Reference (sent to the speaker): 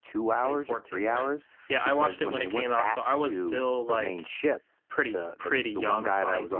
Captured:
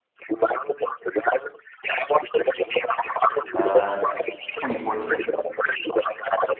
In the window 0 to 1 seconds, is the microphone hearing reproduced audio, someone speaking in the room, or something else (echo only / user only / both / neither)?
echo only